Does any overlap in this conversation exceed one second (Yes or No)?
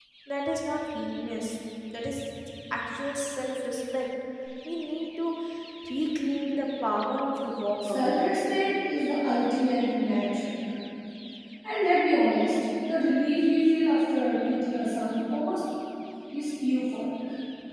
No